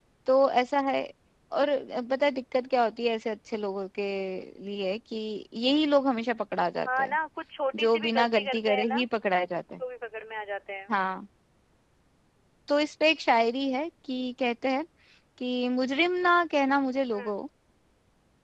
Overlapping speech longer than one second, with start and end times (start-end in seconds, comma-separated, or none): 7.8-9.0